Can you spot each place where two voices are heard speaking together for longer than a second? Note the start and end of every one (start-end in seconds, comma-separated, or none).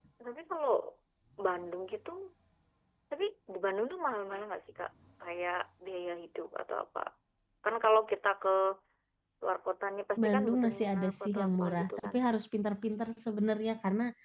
10.2-12.1